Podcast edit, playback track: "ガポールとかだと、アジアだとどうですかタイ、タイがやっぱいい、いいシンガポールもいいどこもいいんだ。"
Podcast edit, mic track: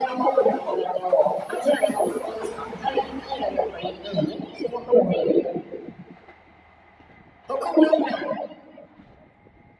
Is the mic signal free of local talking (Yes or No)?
Yes